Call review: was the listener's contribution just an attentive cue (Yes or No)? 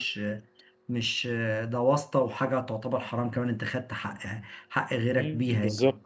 No